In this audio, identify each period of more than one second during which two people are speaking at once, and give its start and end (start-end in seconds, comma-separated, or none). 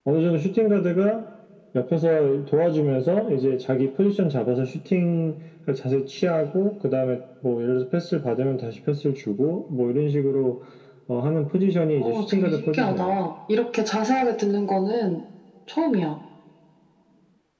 12.0-13.2